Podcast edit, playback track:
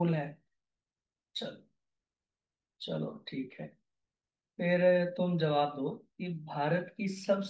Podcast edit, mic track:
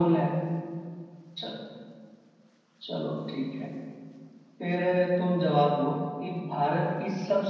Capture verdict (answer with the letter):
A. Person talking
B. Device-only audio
B